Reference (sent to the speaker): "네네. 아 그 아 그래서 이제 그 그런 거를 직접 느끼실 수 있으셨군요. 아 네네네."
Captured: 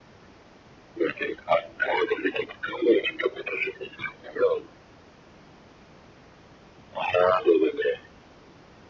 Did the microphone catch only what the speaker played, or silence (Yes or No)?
Yes